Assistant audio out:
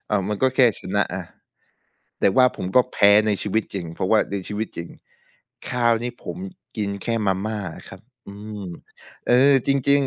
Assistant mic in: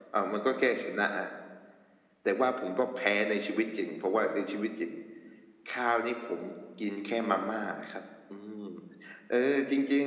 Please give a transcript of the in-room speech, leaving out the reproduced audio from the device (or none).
none